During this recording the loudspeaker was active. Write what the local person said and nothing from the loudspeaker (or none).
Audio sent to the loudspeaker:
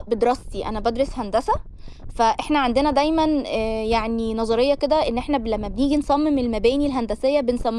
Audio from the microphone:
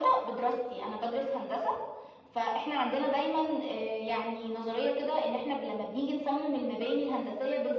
none